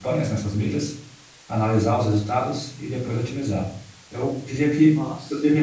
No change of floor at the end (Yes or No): Yes